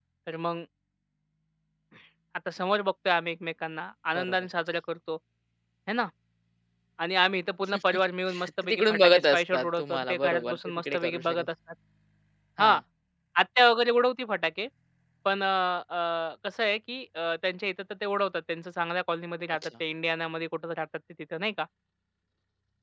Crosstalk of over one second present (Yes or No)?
Yes